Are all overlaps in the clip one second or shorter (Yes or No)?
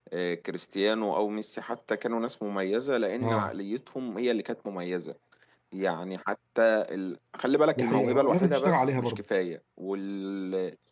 No